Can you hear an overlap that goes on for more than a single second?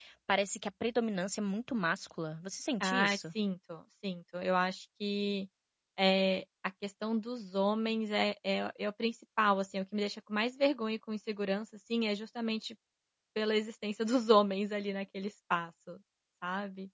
No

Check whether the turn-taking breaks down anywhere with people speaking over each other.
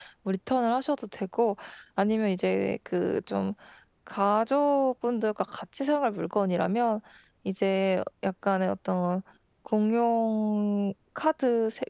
No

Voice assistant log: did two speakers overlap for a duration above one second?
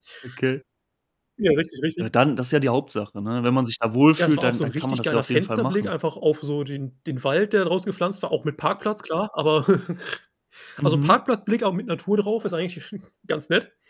Yes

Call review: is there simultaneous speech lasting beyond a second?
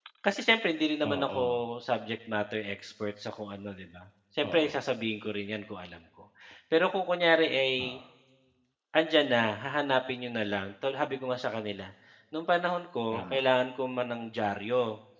No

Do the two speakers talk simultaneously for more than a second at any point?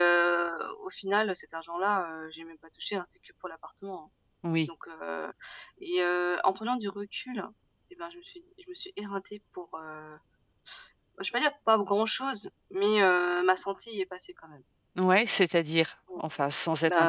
No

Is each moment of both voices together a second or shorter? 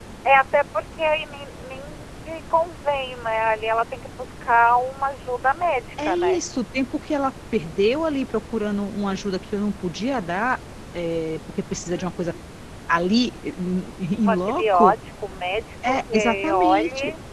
No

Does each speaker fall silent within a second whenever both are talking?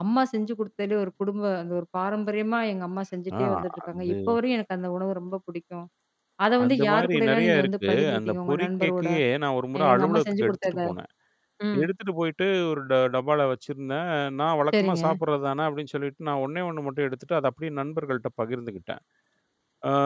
No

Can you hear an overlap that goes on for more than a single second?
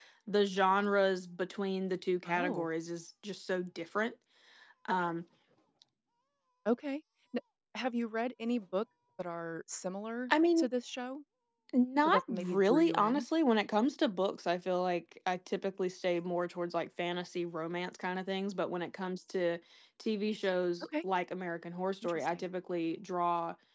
Yes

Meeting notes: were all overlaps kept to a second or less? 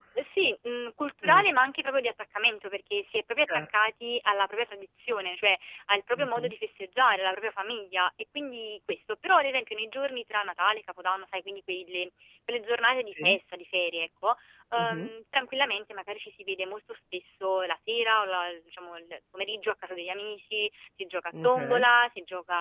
Yes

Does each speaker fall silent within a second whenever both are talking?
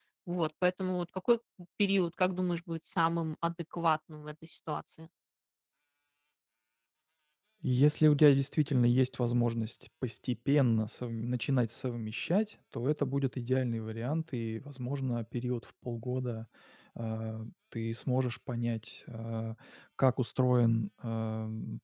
Yes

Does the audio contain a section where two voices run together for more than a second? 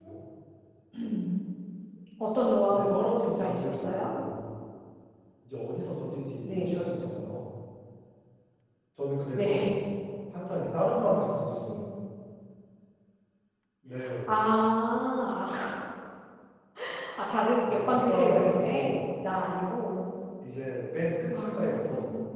Yes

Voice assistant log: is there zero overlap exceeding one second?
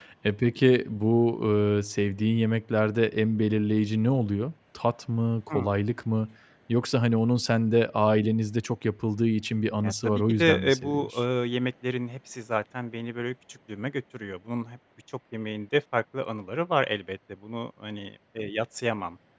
No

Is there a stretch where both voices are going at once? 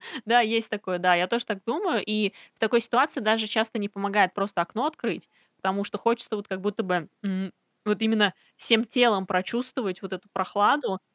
No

